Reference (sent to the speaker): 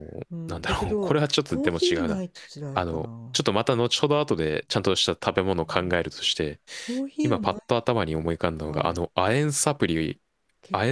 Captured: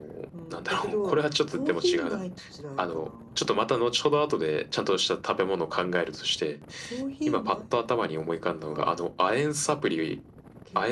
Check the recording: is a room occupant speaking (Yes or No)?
No